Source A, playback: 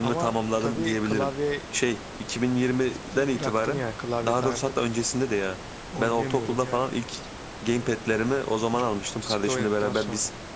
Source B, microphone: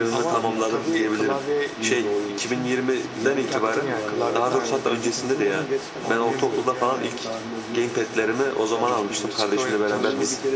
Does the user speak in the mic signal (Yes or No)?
Yes